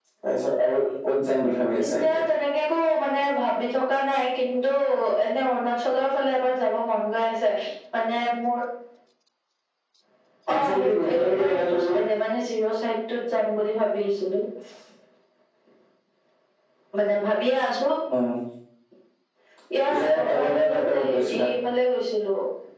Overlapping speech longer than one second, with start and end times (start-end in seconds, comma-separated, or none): 10.5-12.0, 20.0-21.5